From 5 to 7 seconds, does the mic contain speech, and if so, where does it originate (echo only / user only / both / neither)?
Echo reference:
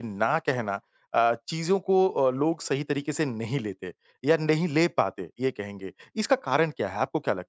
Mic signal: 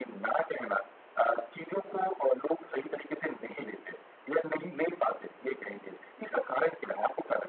echo only